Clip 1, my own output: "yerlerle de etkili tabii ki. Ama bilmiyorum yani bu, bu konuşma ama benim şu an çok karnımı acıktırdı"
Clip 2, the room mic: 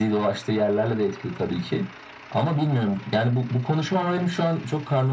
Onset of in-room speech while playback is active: none

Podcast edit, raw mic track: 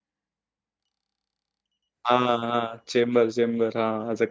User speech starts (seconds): 2.0 s

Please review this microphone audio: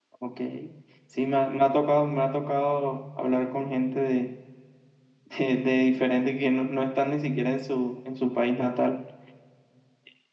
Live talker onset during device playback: none

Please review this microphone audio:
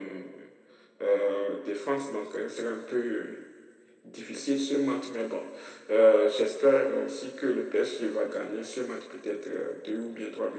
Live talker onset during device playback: none

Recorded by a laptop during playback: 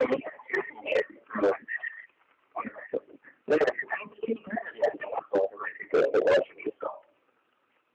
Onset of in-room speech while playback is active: none

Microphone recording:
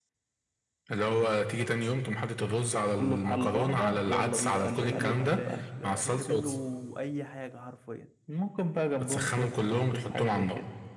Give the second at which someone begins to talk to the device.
4.7 s

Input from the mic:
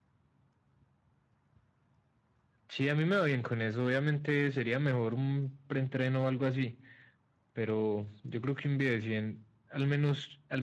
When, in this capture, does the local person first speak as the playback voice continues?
none

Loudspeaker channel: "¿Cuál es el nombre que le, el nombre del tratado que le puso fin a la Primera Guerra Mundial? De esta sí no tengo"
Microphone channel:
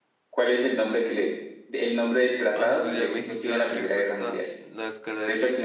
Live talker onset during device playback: 2.5 s

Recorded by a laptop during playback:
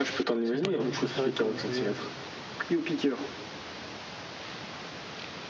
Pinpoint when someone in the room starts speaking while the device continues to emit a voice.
0.4 s

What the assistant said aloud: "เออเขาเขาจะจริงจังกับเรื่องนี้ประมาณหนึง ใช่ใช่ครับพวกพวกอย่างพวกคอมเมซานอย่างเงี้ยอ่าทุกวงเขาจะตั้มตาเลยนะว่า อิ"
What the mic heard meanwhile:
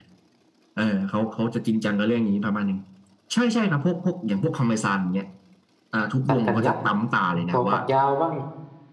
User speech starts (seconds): 6.3 s

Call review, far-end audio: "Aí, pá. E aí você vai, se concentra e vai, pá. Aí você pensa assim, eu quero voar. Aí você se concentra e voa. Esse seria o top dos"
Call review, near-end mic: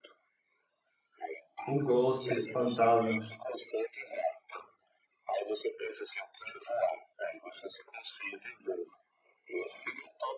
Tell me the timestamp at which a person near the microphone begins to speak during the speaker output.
1.7 s

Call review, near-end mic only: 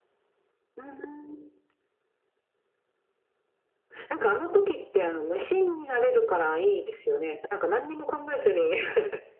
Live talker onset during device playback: none

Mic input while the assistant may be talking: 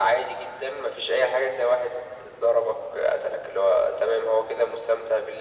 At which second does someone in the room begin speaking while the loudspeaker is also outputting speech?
none

